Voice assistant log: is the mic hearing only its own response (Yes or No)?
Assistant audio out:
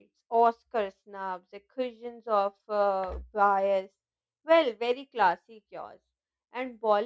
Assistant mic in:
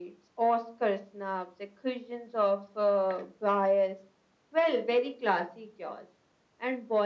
Yes